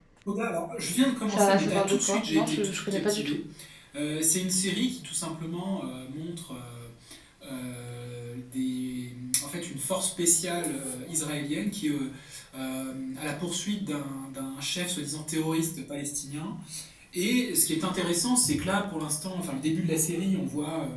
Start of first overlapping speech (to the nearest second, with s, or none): 1 s